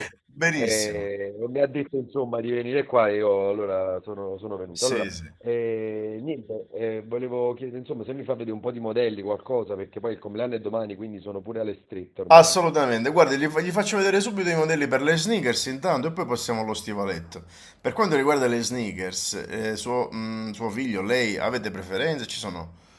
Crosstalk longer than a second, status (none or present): none